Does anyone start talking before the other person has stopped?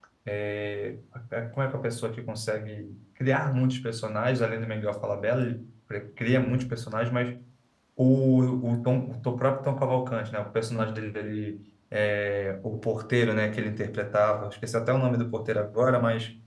No

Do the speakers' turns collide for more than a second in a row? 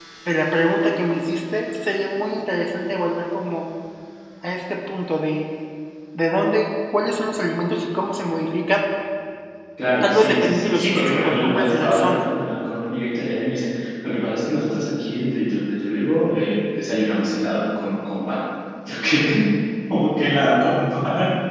Yes, from 10.0 s

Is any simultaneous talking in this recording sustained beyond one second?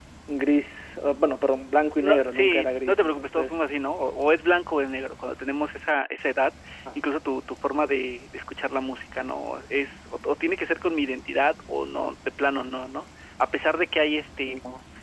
Yes, from 2.0 s

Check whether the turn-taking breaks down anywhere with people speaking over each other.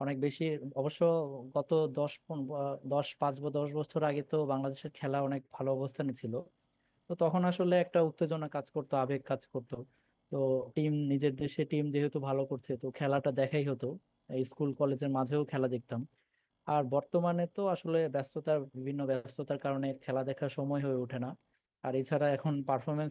No

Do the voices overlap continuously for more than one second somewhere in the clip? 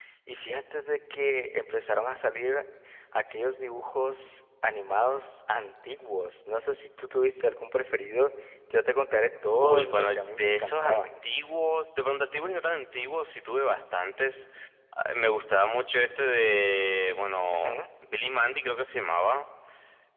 Yes, from 9.6 s

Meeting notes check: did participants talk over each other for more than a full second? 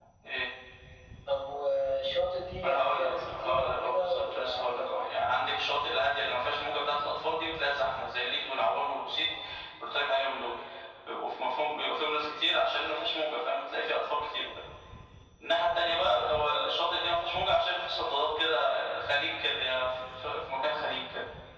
Yes, from 2.6 s

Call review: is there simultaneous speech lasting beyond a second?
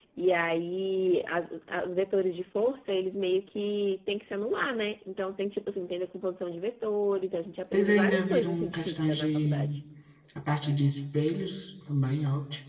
Yes, from 7.7 s

